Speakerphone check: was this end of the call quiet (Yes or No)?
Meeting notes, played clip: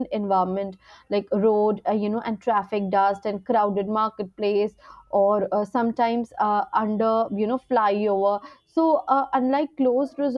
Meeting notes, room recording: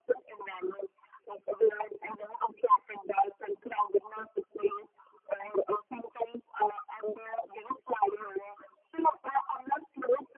Yes